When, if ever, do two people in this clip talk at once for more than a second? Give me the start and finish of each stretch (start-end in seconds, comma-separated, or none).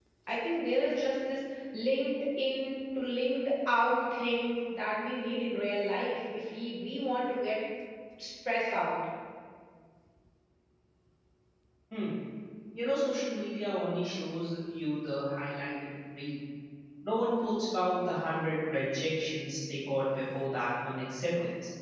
none